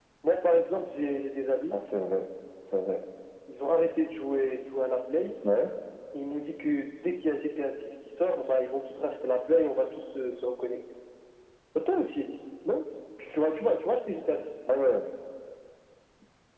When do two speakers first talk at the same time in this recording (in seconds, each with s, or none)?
none